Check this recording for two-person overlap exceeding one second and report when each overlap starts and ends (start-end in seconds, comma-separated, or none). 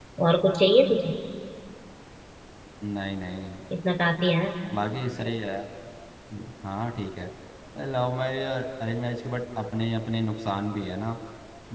none